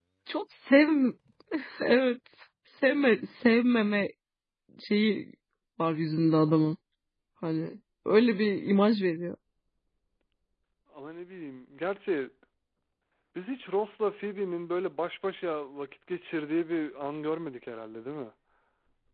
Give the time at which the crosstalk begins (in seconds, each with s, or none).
none